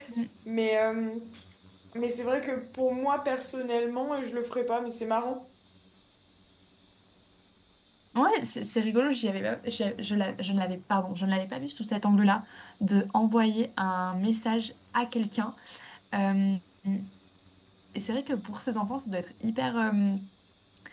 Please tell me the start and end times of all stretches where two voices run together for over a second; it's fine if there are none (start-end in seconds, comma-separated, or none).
none